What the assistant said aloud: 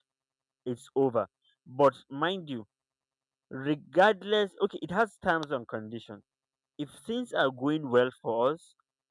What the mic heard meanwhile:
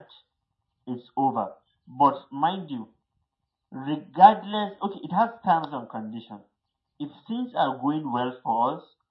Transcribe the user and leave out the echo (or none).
none